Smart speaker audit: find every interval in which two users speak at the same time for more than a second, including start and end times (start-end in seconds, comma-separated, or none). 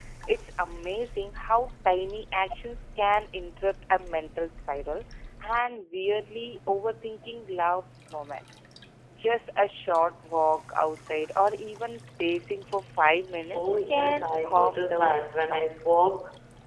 13.5-15.7